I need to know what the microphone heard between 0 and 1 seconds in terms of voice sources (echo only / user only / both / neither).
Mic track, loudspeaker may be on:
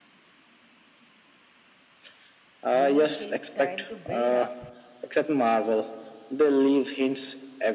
neither